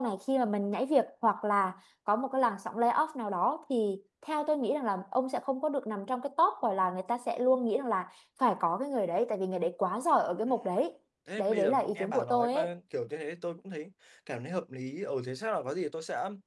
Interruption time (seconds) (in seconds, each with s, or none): 11.4 s